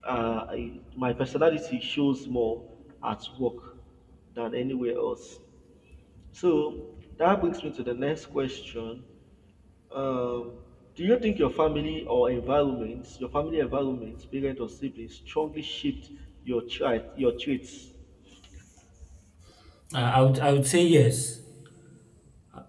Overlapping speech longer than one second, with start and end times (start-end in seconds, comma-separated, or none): none